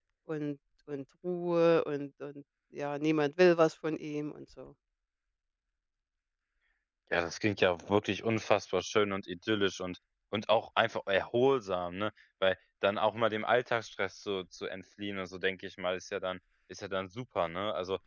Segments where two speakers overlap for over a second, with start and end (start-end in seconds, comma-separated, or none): none